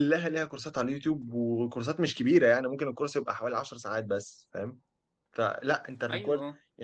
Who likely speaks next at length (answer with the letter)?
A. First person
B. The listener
A